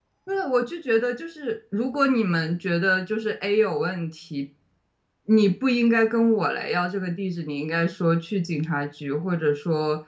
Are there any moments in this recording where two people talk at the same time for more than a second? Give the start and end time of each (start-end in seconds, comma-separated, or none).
none